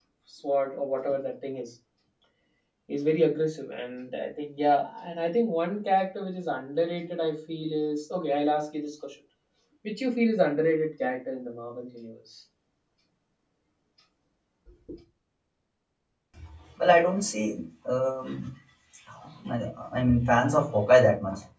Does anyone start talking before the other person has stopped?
No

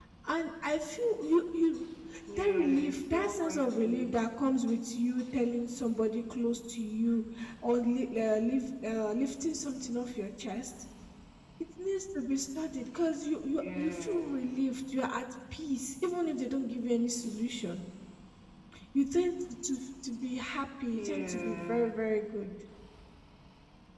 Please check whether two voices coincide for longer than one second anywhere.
Yes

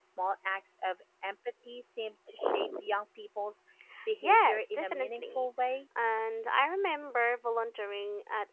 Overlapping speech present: Yes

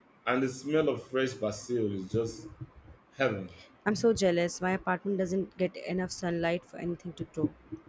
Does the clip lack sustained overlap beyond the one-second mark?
Yes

